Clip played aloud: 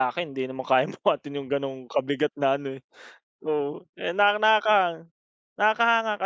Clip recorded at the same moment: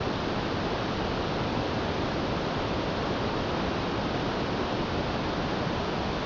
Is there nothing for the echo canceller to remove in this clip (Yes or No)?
Yes